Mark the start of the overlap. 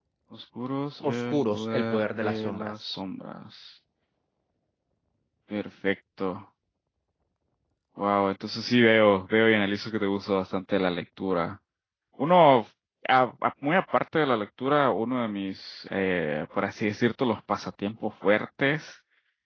1 s

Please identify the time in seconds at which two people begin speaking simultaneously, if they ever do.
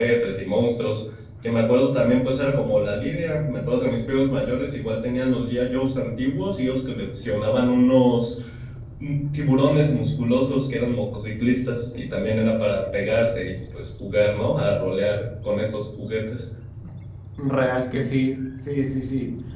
none

